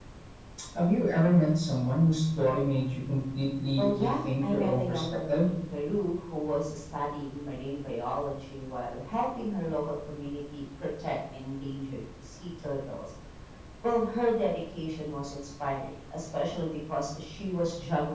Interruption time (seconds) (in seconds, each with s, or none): 3.8 s